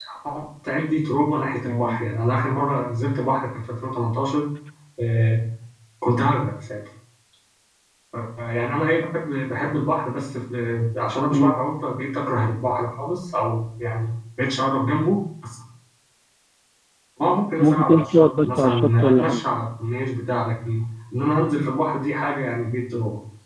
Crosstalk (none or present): present